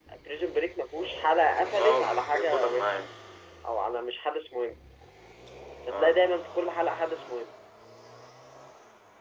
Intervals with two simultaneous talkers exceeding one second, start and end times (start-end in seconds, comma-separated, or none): 1.8-3.0